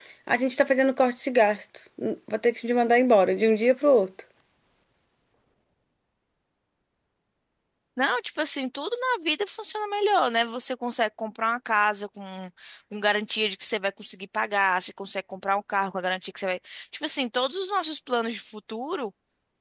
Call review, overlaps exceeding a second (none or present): none